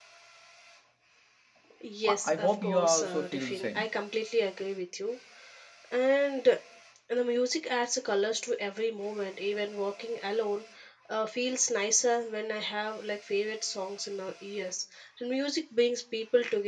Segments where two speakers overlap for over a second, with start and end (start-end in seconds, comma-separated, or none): 2.0-3.8